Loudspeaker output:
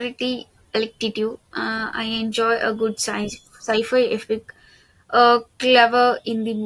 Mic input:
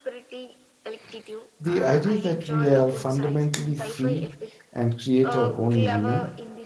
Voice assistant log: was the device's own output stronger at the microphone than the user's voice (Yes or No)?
No